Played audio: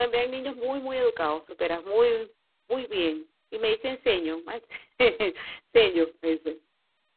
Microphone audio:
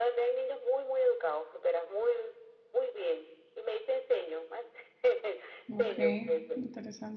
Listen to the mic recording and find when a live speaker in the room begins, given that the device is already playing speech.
5.7 s

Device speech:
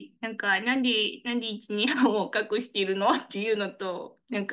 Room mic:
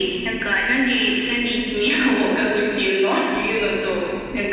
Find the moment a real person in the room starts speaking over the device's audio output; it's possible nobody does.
none

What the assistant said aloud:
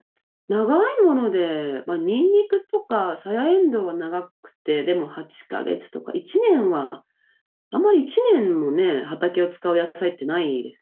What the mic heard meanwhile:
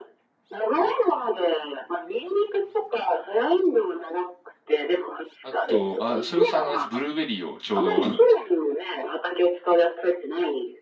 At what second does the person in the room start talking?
5.4 s

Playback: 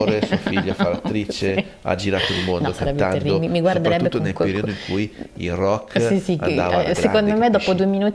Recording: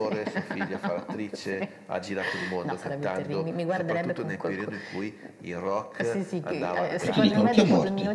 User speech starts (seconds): 7.0 s

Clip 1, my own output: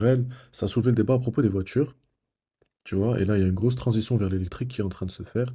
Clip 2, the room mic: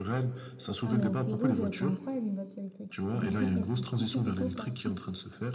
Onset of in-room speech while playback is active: 0.8 s

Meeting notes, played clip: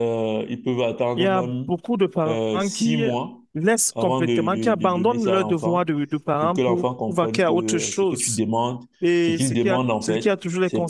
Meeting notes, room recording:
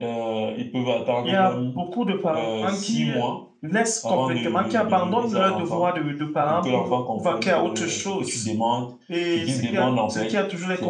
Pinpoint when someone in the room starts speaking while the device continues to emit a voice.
none

